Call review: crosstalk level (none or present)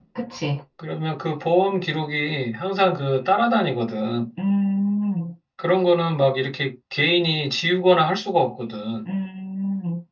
none